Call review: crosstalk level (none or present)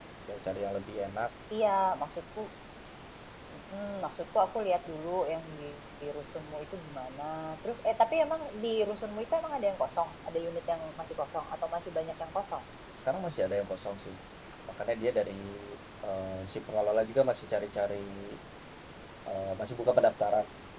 none